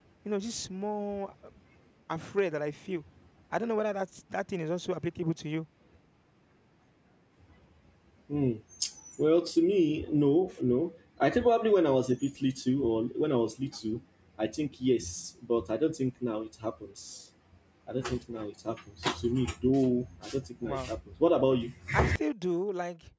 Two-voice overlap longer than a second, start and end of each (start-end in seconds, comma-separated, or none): none